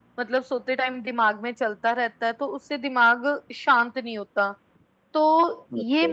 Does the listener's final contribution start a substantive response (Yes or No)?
No